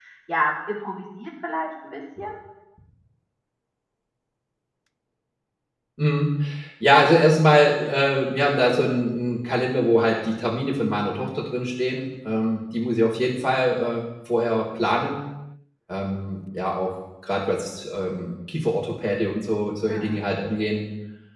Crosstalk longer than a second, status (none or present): none